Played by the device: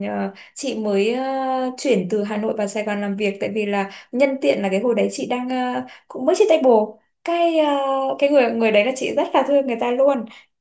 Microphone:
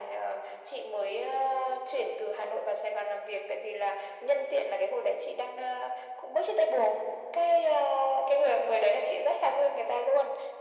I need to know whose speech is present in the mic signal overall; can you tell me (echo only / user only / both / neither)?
echo only